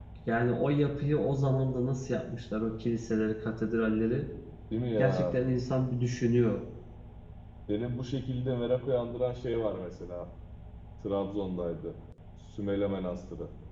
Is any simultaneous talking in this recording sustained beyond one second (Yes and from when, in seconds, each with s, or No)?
No